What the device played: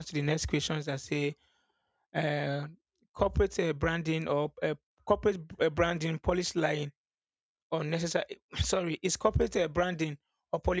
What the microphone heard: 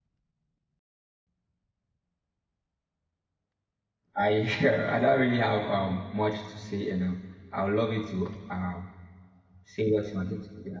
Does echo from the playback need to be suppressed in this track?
No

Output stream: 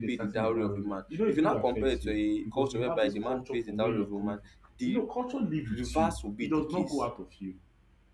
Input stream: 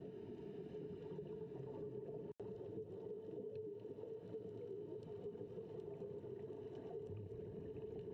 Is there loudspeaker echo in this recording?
No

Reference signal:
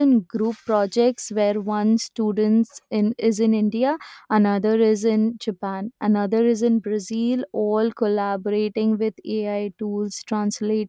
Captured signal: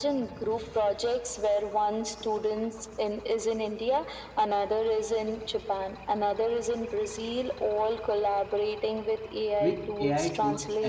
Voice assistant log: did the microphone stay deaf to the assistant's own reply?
No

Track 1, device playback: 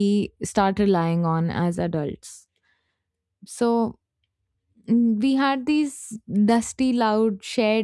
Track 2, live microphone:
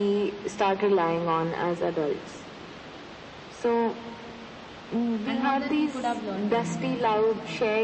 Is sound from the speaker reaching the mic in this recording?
Yes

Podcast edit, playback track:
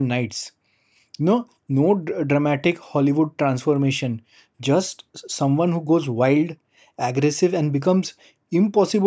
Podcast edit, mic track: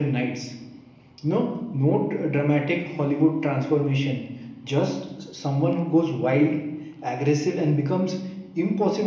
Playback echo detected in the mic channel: Yes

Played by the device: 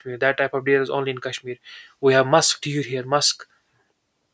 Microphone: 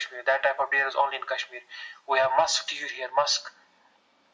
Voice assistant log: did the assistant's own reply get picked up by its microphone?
Yes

